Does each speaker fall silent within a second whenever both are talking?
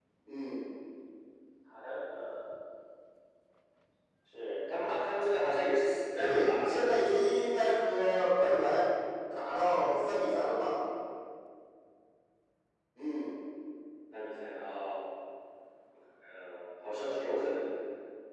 No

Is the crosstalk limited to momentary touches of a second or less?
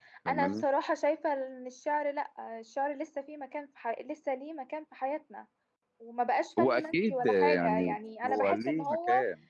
No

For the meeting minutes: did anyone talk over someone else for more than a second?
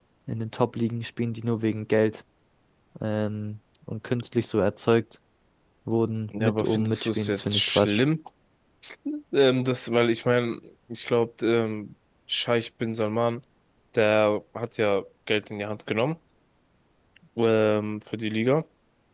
Yes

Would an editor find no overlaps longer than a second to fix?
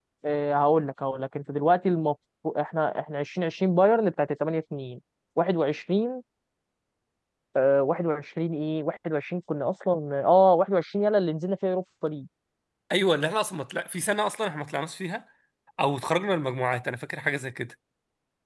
Yes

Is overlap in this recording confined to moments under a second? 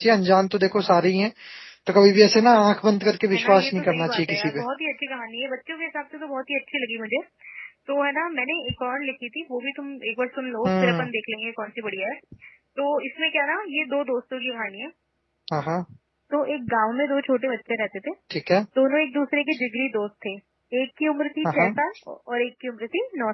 No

